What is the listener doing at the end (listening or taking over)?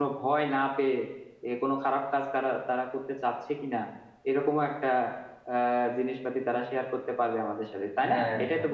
taking over